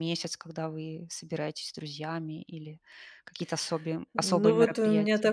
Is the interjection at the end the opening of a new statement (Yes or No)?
Yes